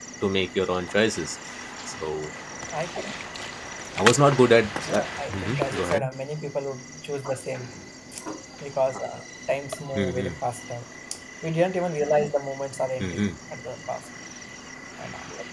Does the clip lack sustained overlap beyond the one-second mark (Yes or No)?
No